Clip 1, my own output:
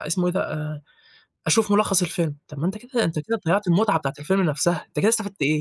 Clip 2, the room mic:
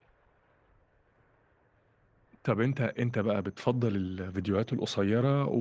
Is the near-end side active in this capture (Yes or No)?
Yes